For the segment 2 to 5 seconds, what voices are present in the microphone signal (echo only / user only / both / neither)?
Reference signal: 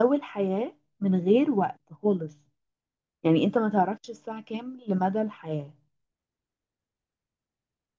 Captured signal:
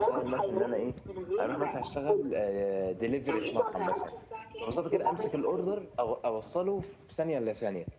both